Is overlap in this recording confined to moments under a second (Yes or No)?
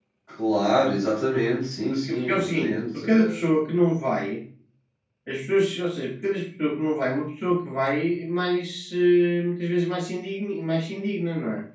No